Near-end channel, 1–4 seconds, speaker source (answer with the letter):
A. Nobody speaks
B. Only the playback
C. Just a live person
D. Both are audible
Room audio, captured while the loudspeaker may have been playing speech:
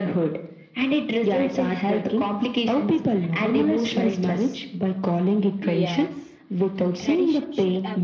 B